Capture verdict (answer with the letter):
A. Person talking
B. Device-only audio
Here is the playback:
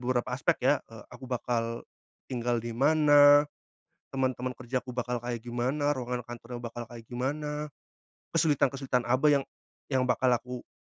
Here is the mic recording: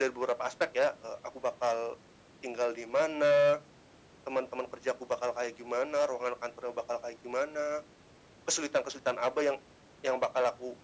B